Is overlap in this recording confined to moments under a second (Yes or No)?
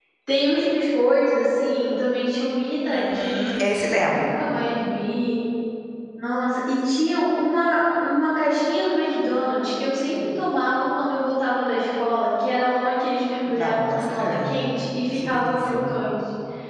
No